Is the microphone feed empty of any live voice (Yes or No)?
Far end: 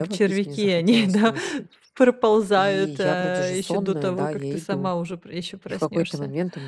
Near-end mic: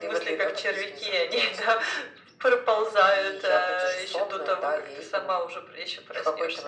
Yes